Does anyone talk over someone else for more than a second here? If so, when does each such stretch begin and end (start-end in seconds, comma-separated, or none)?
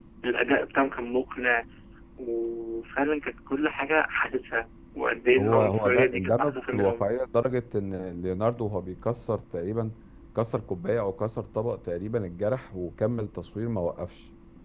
5.4-7.1